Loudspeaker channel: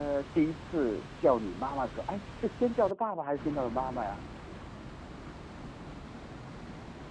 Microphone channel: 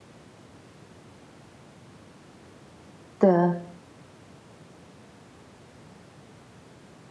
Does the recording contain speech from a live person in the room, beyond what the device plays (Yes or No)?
Yes